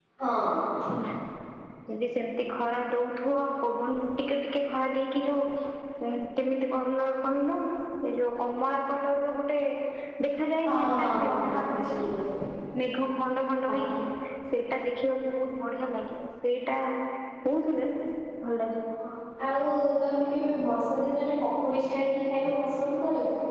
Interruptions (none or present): present